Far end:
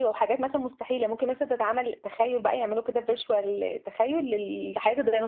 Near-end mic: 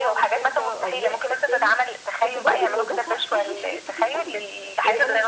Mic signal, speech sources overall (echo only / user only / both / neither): both